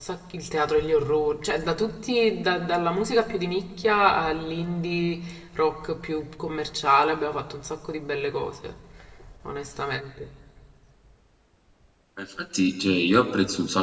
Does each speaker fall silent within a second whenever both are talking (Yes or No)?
Yes